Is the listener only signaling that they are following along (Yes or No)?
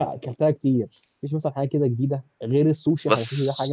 Yes